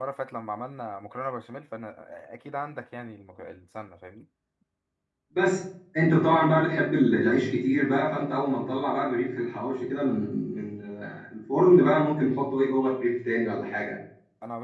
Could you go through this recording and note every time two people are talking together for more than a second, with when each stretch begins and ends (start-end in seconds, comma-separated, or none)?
none